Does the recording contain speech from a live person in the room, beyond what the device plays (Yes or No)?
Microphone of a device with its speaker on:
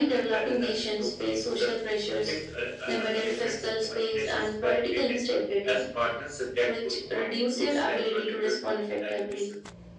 No